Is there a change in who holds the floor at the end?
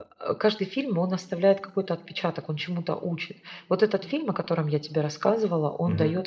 No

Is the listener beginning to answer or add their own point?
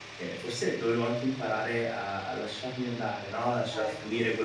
No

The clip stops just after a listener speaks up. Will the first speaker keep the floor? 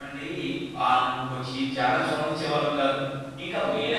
No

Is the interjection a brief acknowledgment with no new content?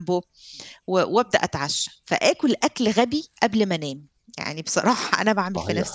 No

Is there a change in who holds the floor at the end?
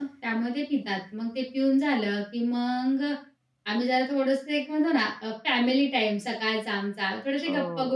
No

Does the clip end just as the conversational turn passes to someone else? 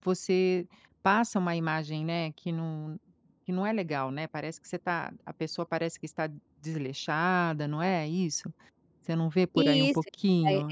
Yes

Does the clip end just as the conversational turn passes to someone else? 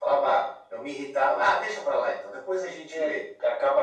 Yes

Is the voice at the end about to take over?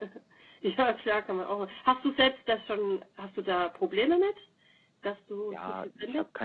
Yes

